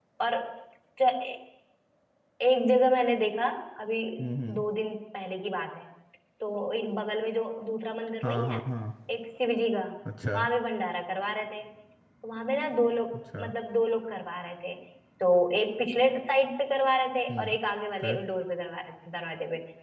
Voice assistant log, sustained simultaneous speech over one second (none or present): none